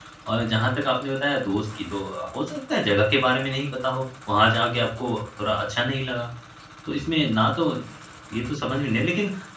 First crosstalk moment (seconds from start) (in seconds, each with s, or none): none